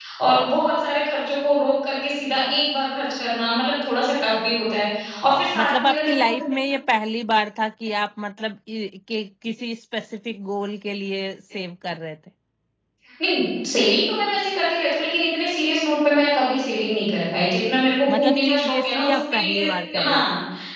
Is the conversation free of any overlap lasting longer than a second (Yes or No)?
No